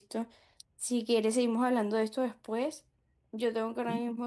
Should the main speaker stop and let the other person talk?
No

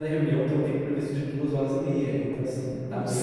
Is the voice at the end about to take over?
No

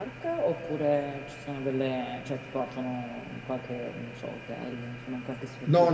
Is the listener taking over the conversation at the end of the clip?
Yes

